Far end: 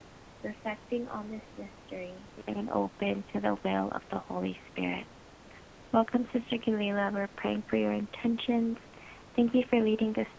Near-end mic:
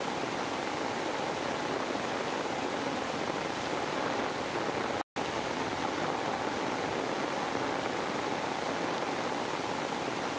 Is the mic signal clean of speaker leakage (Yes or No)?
Yes